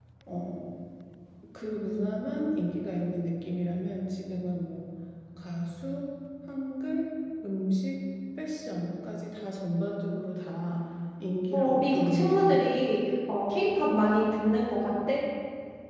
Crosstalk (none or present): present